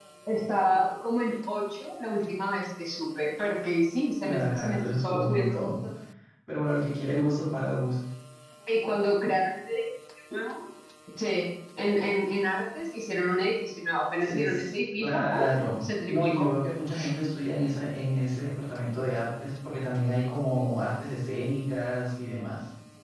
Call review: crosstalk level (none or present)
present